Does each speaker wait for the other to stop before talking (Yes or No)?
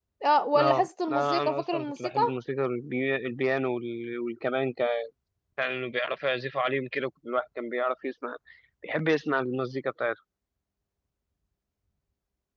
No